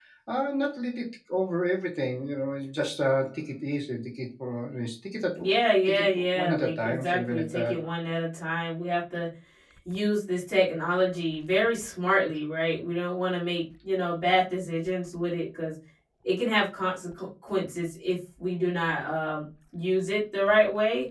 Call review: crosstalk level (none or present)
present